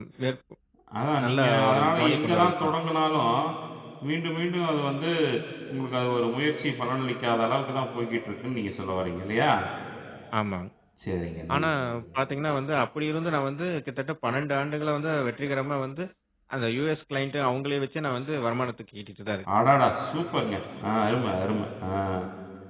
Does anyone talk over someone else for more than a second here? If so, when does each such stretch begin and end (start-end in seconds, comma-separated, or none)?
1.3-2.7